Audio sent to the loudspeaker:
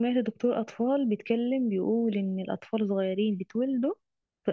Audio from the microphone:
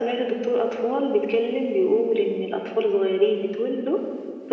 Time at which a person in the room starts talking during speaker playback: none

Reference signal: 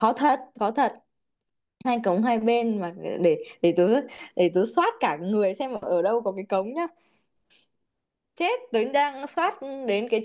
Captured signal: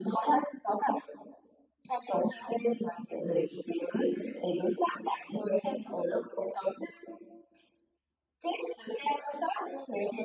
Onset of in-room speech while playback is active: none

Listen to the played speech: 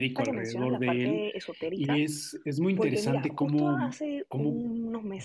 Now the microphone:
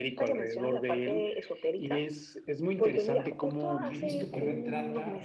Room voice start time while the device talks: 4 s

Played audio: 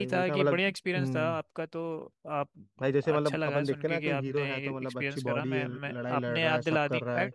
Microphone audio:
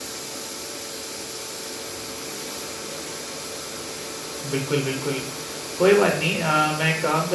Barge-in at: 5 s

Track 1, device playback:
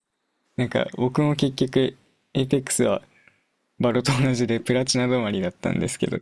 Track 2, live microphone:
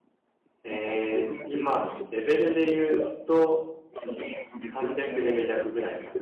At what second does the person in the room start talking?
1 s

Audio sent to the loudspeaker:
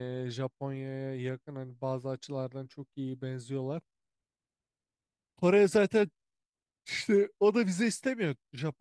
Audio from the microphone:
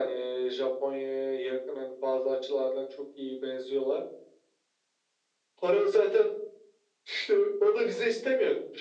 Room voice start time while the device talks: none

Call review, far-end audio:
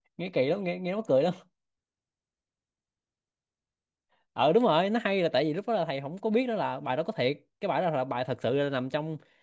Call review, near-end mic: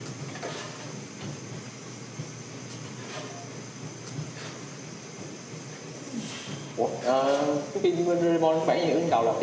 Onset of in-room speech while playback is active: 7 s

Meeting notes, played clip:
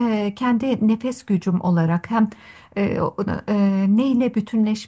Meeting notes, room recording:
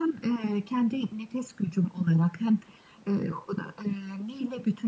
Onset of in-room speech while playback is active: none

